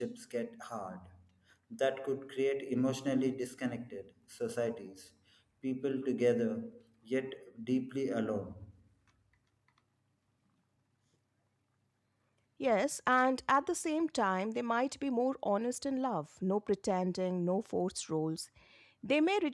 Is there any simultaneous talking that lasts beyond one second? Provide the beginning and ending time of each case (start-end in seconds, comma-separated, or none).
none